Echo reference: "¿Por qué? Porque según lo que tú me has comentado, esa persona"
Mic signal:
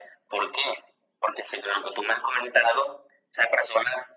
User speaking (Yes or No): No